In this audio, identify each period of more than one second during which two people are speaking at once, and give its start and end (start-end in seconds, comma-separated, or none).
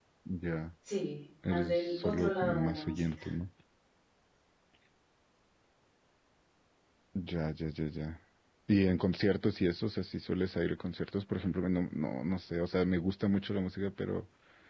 1.5-3.2